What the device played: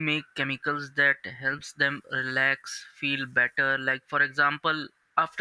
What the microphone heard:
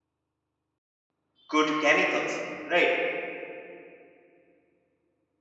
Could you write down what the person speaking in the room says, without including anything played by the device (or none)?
good chemicals right